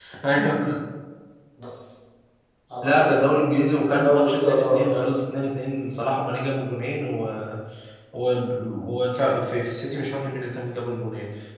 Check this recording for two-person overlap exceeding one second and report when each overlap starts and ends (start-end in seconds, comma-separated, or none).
3.8-5.0